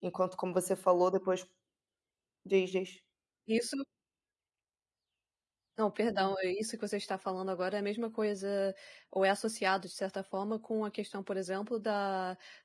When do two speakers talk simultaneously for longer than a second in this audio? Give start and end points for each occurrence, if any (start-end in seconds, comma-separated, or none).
none